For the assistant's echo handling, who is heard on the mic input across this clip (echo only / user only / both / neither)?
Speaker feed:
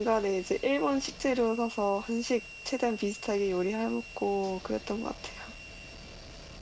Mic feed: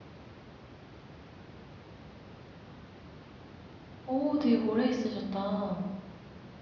user only